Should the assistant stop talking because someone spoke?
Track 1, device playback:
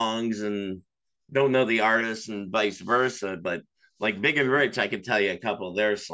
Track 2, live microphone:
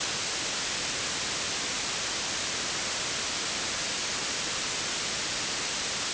No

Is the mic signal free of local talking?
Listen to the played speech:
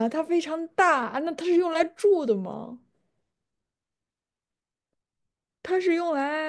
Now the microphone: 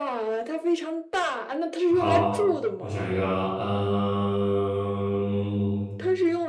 No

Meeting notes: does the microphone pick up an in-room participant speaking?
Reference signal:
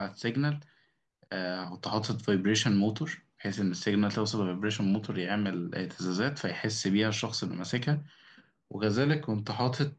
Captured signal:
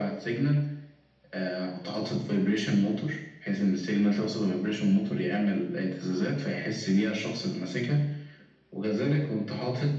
No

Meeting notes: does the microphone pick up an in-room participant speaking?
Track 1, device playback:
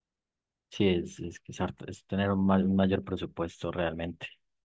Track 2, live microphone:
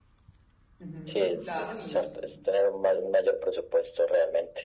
Yes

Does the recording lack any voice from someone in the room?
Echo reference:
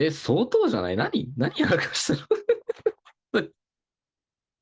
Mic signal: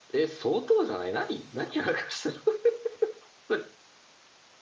Yes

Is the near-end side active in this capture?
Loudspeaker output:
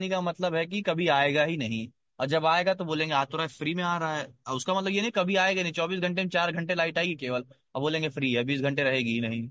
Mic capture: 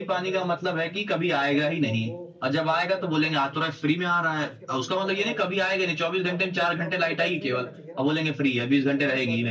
Yes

